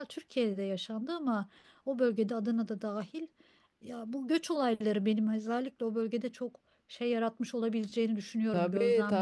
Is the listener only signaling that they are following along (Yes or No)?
No